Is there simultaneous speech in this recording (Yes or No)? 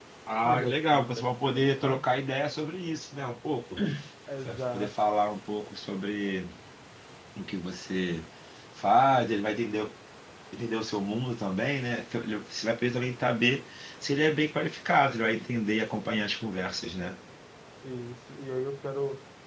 Yes